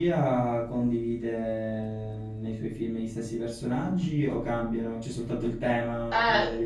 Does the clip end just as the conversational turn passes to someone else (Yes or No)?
Yes